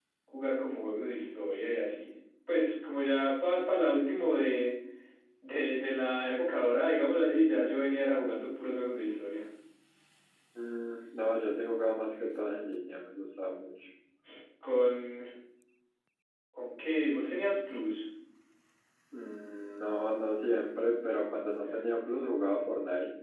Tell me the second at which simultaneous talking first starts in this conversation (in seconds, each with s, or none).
none